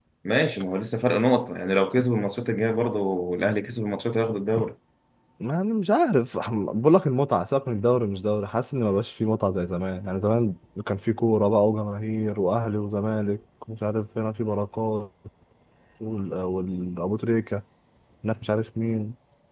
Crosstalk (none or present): none